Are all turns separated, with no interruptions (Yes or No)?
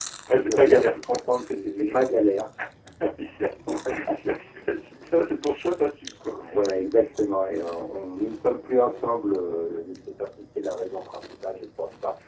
No